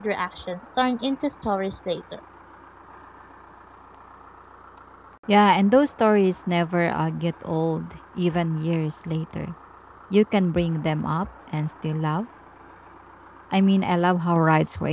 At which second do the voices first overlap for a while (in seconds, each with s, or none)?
none